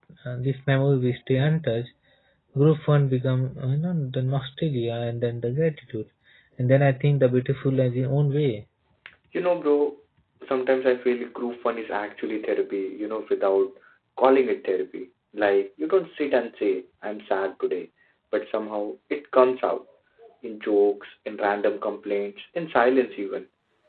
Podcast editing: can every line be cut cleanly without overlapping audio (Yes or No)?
Yes